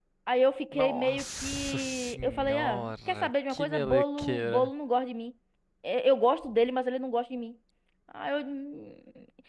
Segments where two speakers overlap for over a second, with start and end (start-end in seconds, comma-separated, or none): 0.8-4.7